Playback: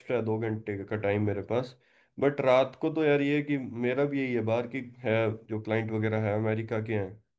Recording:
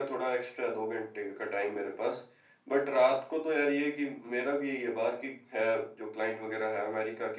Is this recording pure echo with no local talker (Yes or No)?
Yes